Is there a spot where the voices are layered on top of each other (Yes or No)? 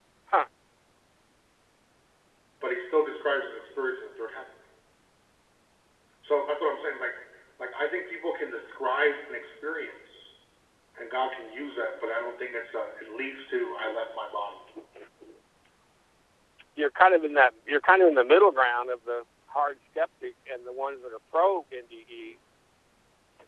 No